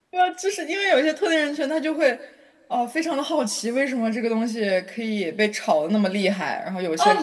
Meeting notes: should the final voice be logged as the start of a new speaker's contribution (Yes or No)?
Yes